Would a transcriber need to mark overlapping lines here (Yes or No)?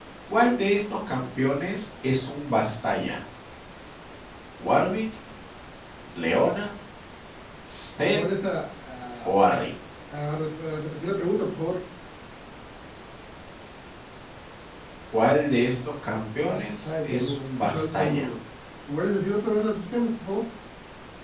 Yes